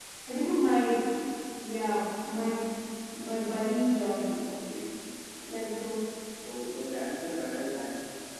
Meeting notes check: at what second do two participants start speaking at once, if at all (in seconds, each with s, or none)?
none